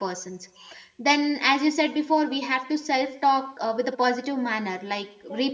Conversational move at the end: listening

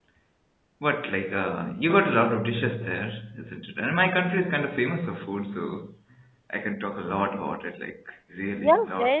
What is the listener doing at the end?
taking over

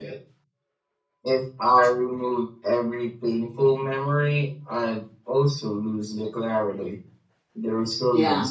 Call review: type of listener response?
listening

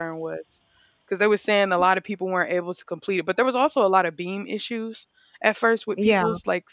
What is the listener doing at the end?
listening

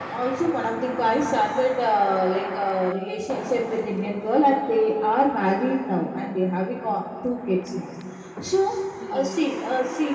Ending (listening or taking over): listening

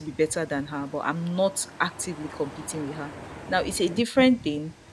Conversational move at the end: listening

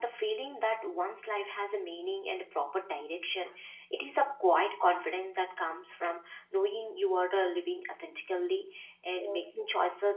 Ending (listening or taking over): listening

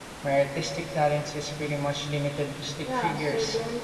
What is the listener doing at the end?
taking over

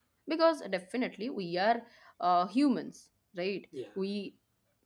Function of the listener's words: listening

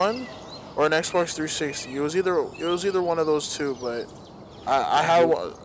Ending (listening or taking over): listening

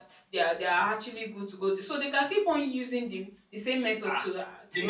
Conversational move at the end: taking over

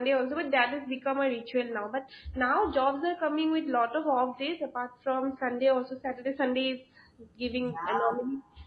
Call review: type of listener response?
listening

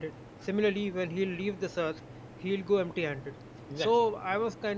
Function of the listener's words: listening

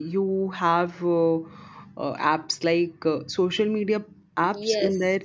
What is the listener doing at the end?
taking over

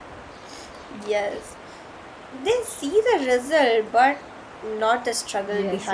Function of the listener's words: taking over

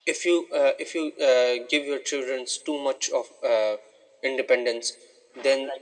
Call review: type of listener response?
listening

